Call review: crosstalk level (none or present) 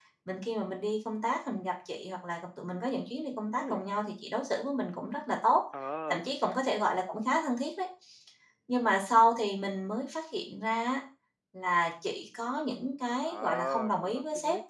present